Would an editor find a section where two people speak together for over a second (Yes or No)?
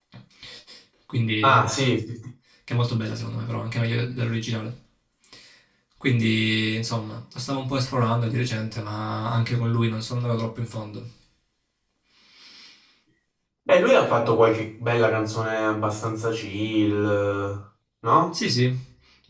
No